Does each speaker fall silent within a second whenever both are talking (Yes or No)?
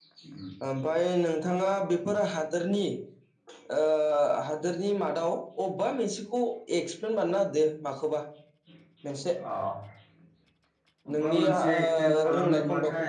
No